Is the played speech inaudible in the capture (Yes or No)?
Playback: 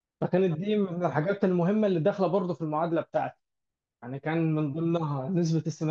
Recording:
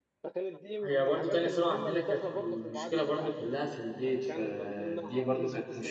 No